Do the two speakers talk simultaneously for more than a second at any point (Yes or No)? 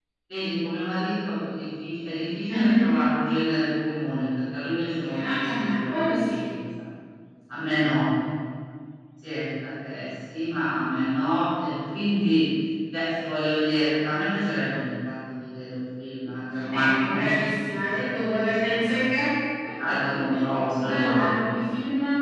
Yes